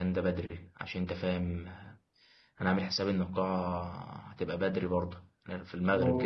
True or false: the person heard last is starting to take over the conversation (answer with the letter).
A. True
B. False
B